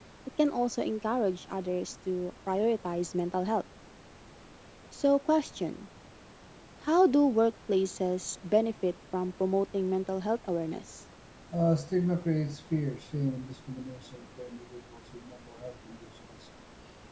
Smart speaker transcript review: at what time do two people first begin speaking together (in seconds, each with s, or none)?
none